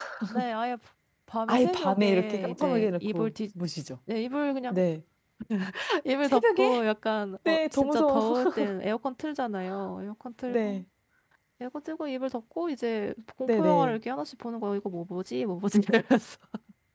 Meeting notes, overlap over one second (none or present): present